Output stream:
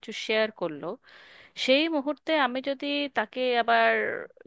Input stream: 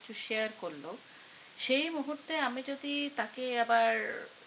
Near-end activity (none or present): none